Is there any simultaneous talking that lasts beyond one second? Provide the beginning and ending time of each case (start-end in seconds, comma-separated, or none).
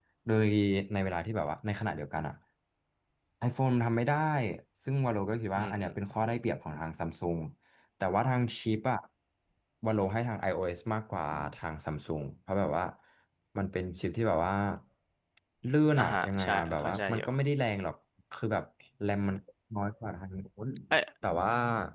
16.0-17.3